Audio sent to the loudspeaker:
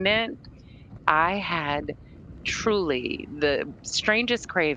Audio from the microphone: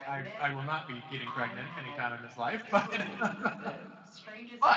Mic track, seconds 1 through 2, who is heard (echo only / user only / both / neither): both